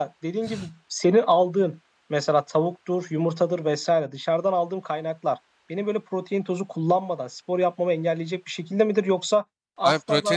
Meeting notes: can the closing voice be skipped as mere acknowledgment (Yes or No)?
No